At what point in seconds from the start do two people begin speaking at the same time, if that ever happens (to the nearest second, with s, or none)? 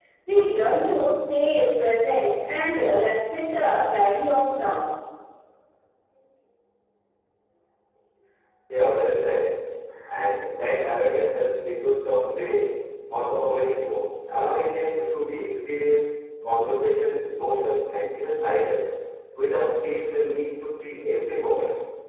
none